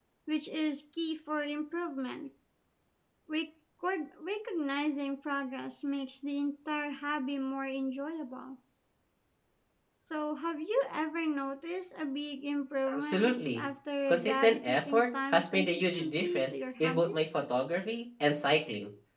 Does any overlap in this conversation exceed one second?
Yes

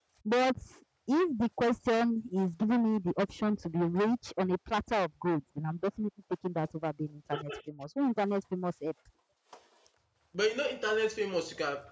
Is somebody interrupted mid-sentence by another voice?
No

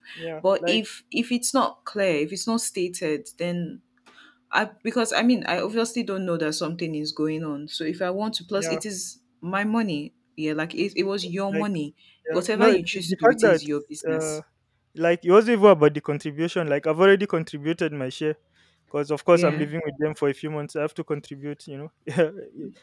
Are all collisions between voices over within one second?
No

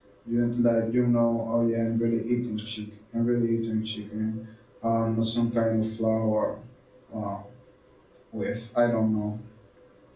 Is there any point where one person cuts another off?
No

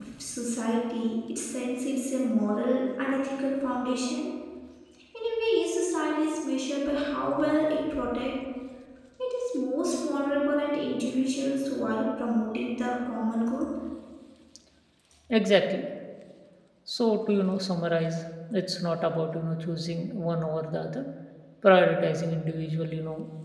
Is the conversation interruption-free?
Yes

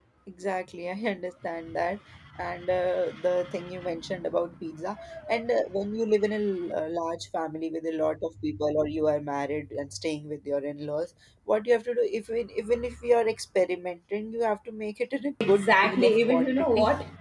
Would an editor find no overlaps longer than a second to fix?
No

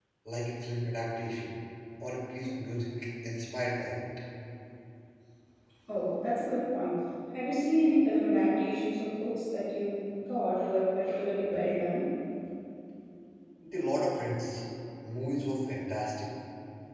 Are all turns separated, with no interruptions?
Yes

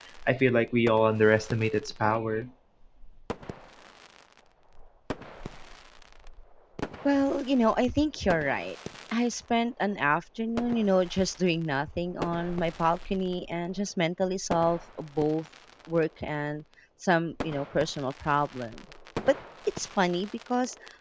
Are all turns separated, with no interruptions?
Yes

